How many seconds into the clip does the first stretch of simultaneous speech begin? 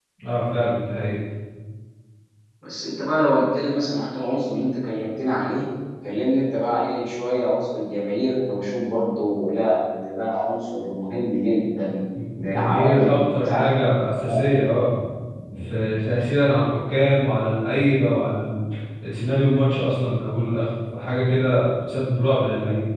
12 s

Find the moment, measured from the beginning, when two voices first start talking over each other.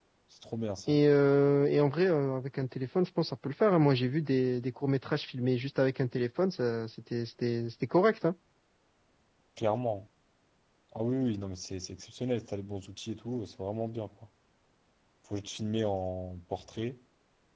none

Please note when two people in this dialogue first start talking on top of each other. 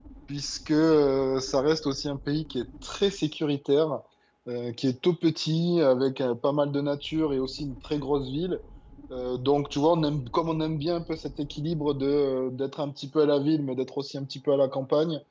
none

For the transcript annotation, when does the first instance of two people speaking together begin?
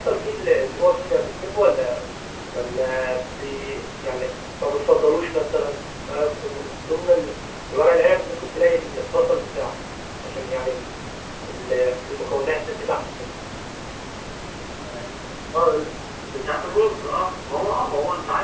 none

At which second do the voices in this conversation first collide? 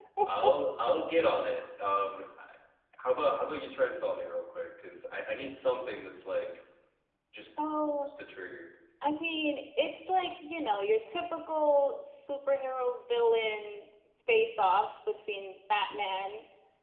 none

